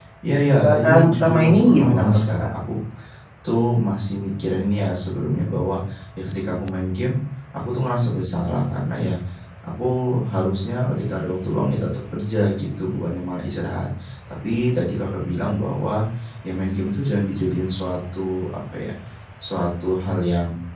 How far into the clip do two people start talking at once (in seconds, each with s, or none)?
0.6 s